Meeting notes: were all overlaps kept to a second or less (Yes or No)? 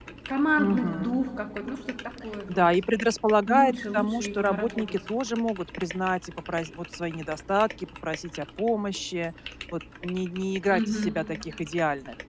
No